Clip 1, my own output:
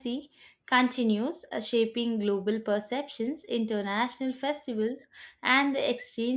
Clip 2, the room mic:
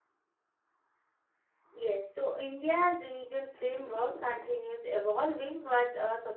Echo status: none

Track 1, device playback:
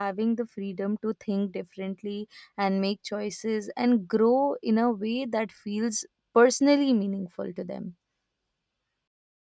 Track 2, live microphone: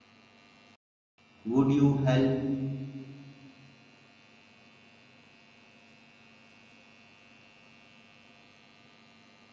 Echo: none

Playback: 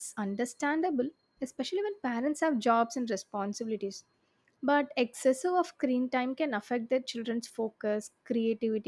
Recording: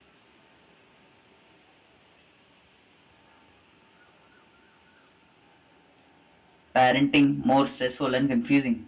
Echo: none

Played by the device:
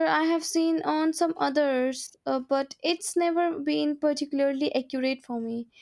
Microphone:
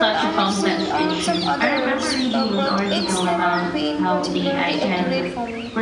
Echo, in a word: present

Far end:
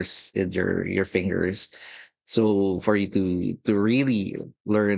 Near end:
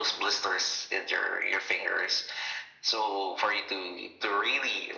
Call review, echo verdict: present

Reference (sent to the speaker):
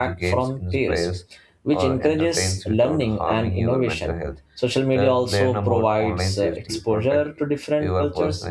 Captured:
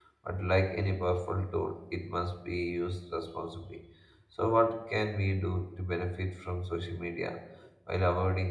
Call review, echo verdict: none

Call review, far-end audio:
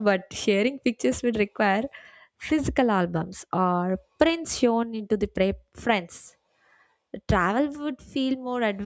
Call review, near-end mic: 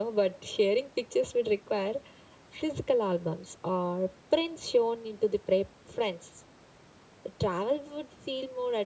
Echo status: present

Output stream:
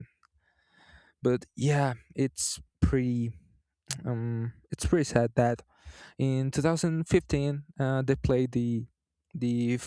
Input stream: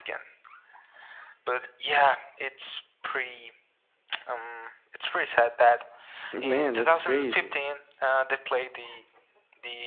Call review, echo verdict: present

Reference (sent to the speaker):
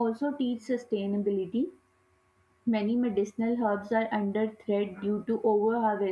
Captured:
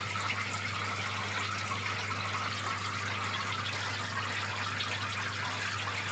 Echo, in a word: none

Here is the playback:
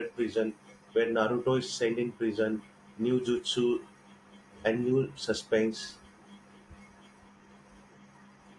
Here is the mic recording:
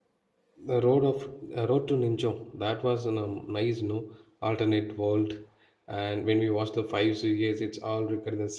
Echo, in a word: none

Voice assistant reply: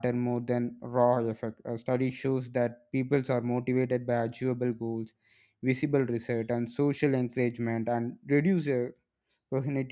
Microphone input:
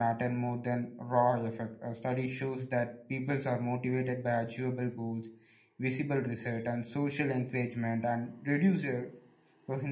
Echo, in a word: present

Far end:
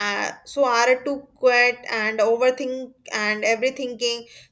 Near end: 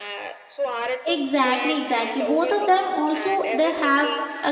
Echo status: present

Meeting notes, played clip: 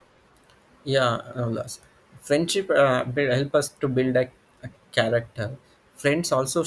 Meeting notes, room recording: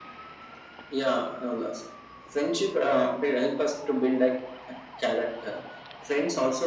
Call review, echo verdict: present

